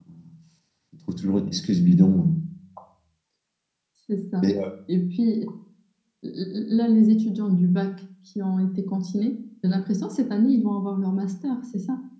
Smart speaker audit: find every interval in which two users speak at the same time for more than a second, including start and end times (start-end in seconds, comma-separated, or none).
none